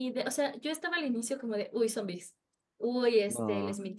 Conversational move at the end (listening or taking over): listening